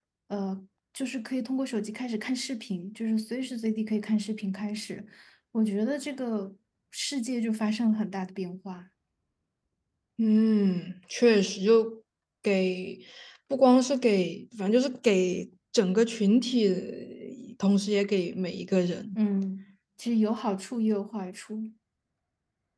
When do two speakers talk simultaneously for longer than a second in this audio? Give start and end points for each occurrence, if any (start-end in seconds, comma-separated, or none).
none